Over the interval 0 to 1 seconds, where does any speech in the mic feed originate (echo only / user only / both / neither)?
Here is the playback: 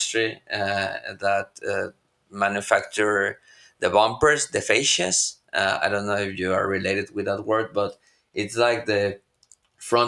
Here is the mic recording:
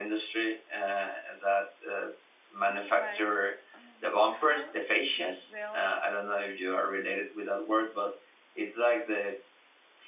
echo only